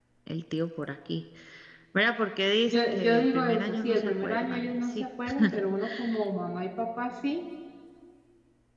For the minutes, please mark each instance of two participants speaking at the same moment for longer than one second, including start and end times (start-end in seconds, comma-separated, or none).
2.7-5.0